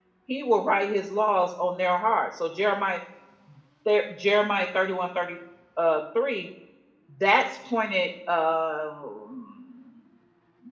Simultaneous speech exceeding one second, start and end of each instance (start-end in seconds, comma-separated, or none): none